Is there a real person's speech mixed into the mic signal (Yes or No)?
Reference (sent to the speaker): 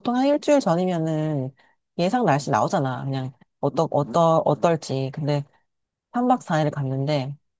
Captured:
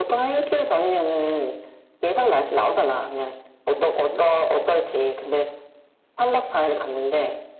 No